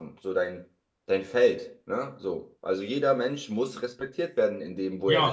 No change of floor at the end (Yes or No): No